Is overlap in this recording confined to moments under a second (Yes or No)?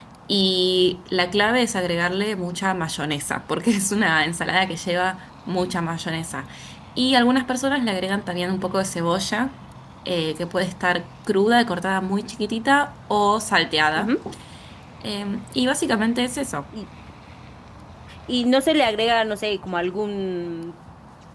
Yes